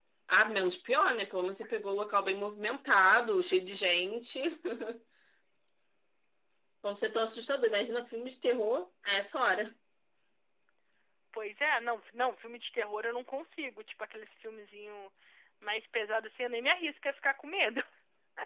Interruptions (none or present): none